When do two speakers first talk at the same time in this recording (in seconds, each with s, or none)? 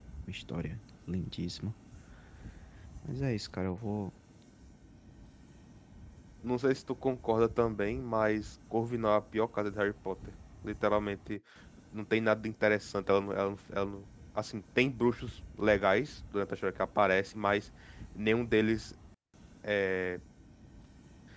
none